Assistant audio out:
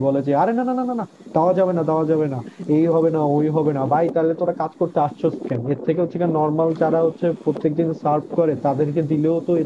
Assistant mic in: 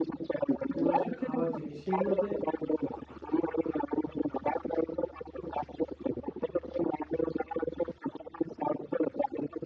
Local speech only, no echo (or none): যেগুলো আসলে খাওয়ার জিনিস সেইগুলাতে